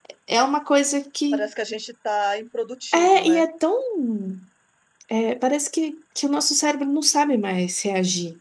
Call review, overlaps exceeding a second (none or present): none